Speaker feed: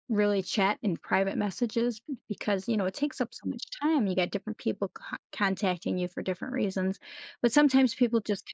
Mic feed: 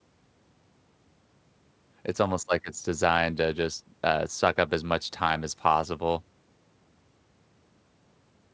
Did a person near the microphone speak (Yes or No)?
Yes